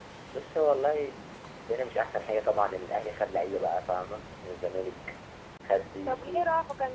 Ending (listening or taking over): taking over